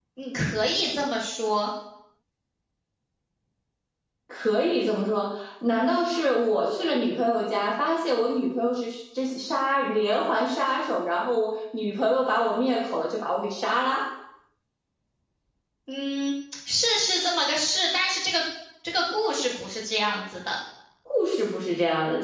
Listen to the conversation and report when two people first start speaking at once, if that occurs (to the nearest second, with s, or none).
none